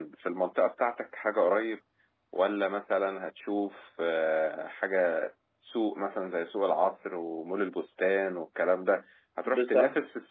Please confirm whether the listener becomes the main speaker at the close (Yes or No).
No